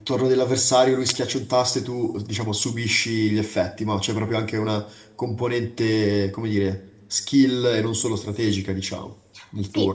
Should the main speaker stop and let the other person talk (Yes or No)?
Yes